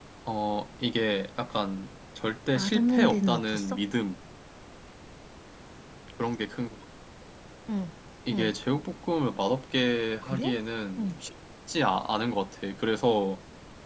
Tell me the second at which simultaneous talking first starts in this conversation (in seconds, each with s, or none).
2.5 s